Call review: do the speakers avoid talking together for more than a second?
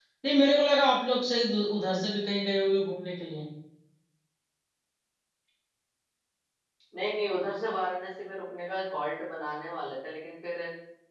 Yes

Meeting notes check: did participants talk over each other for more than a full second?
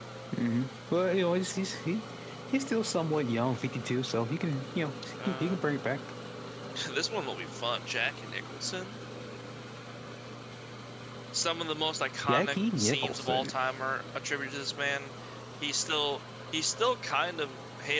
Yes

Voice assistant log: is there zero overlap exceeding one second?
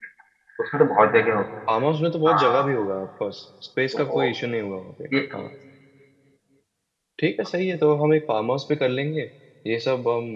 Yes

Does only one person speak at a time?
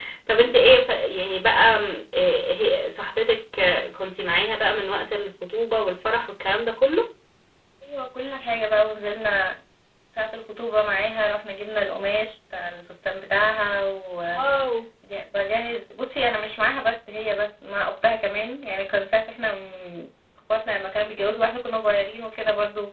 Yes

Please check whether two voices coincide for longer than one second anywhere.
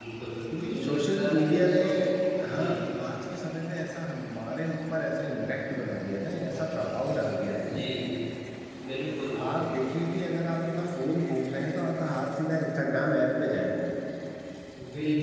Yes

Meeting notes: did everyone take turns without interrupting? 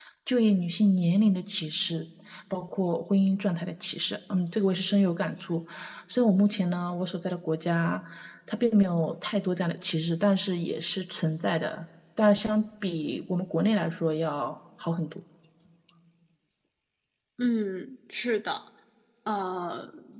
Yes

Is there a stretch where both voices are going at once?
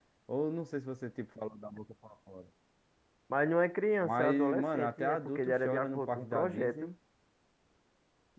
Yes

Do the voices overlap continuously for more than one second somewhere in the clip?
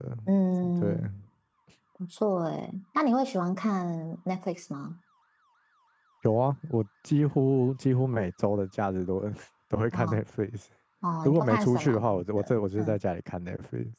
Yes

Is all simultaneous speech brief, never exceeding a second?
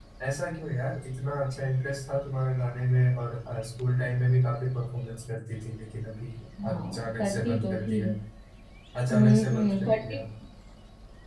No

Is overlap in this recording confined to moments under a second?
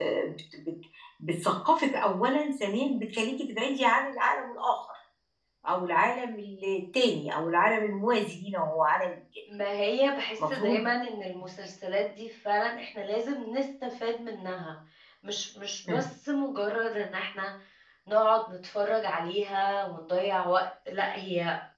Yes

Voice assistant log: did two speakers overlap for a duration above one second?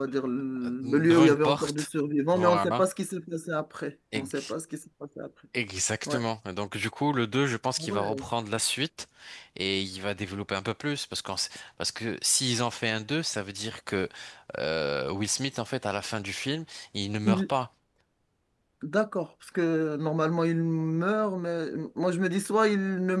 Yes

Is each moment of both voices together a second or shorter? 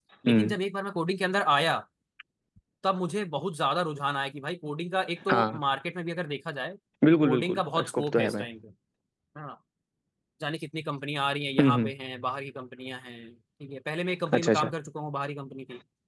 No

